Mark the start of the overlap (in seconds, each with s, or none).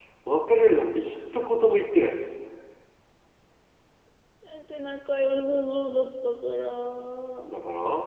none